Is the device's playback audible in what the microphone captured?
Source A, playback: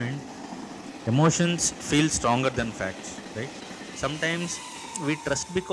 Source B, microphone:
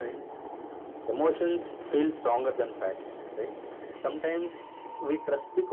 Yes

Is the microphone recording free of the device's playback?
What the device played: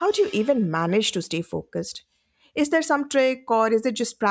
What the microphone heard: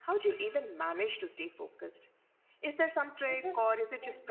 No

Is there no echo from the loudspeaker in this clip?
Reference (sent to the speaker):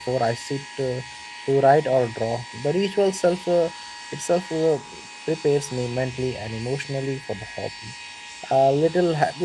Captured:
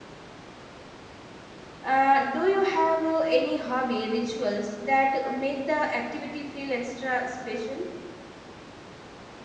Yes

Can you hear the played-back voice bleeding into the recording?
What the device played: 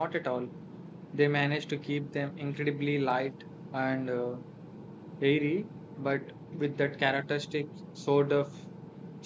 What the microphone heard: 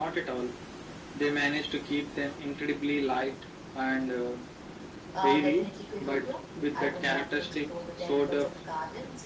Yes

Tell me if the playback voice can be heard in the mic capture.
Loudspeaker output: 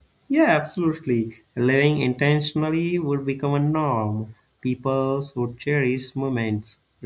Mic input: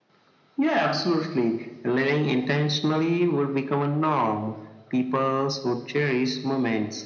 Yes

